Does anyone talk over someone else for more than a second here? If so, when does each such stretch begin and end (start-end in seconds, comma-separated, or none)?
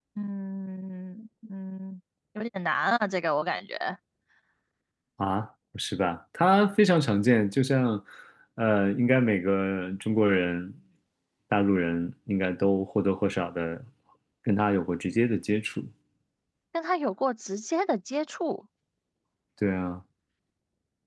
none